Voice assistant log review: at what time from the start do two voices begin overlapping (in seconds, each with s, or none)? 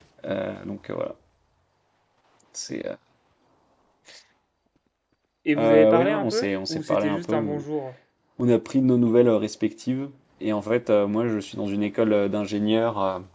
5.6 s